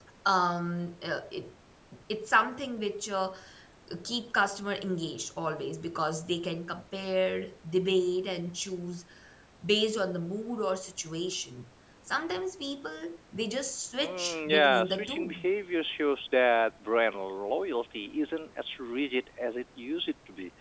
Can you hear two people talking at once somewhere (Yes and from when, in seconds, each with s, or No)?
Yes, from 14.0 s